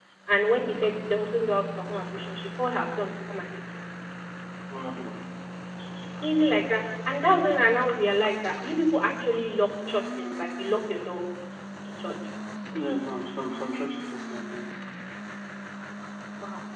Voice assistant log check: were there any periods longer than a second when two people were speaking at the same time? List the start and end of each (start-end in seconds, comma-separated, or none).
none